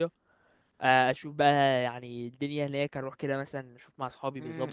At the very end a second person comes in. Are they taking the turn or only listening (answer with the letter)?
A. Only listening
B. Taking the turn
B